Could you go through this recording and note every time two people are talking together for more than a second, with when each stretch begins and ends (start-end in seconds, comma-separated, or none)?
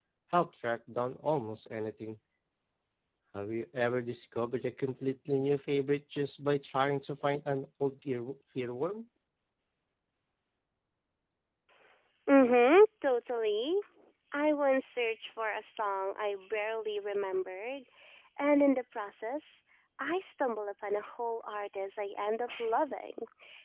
none